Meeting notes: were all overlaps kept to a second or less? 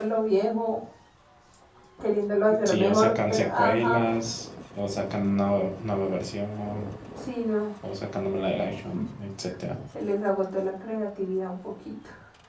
No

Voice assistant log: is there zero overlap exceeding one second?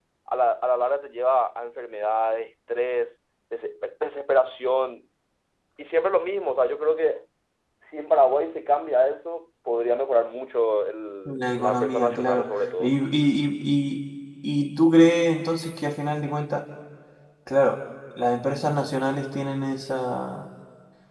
No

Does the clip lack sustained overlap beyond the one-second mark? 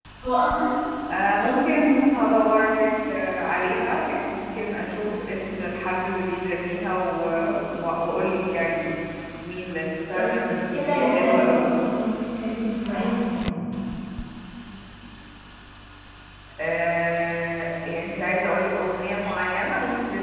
No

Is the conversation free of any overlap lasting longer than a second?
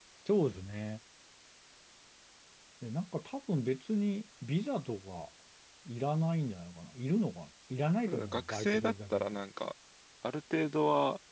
No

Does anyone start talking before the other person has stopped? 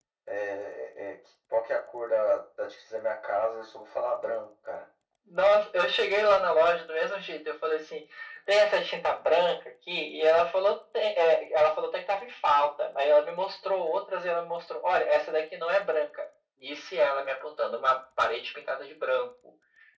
No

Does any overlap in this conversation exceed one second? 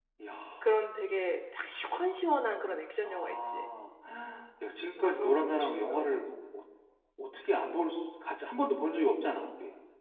Yes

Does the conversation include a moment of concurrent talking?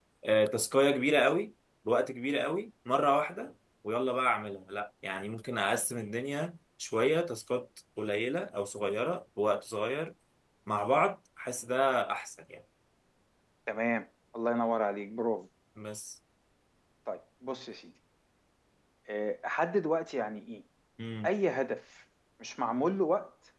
No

